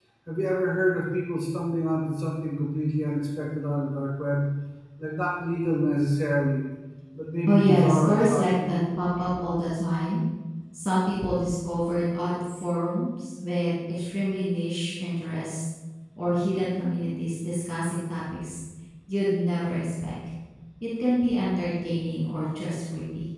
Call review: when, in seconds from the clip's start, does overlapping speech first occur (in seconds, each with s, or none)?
7.5 s